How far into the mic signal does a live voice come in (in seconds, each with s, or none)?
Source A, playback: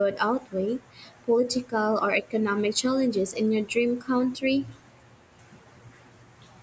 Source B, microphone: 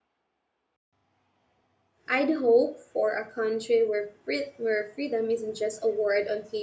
2.1 s